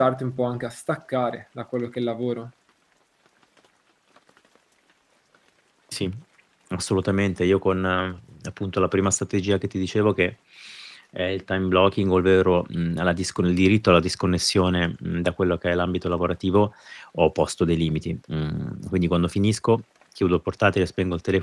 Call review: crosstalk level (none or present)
none